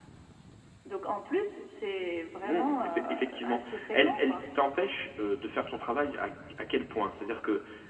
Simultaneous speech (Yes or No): Yes